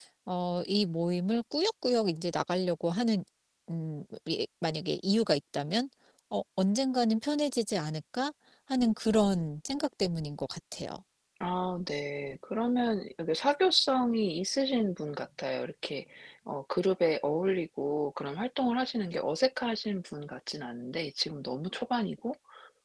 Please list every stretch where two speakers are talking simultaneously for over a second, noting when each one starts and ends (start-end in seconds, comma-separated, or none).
none